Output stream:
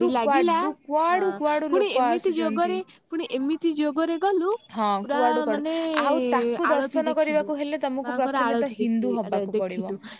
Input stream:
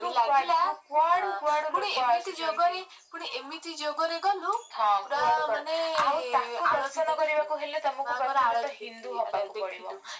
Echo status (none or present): present